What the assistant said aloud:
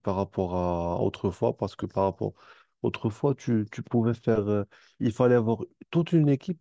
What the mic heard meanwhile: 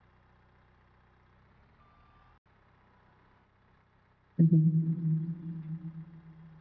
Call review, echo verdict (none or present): none